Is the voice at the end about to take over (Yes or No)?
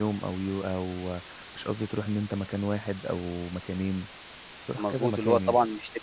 Yes